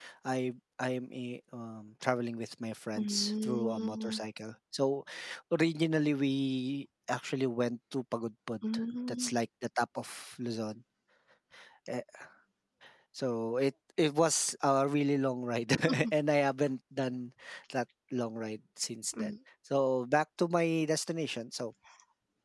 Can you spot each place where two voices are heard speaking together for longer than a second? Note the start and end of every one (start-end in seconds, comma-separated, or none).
3.0-4.2